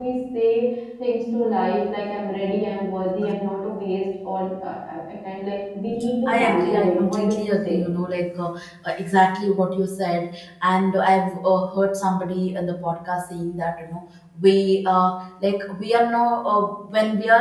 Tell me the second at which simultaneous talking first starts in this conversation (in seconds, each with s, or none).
6.3 s